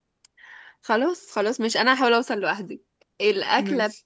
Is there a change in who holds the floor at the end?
No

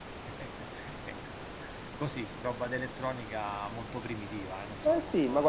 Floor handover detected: Yes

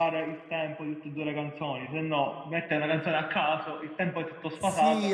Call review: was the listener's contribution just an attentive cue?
No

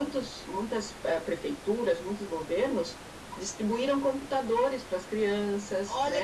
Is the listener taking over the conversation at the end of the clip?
Yes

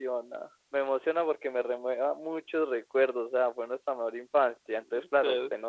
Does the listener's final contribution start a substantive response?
No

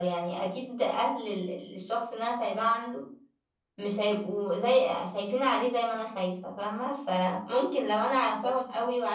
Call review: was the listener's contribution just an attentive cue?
Yes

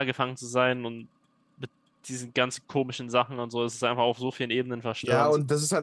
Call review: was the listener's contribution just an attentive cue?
No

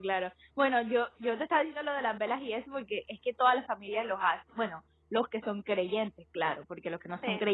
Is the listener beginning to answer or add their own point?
No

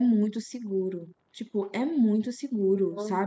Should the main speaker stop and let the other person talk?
No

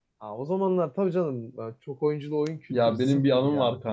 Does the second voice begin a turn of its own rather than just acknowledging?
Yes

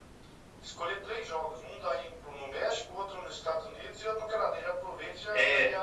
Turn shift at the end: Yes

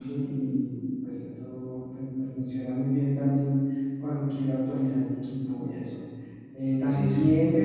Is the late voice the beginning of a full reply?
No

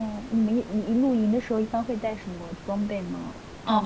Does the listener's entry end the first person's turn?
Yes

